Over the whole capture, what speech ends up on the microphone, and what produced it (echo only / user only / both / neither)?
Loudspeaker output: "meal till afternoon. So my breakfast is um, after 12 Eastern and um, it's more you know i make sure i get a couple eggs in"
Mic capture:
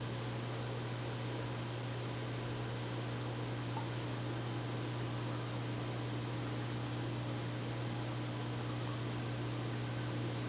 neither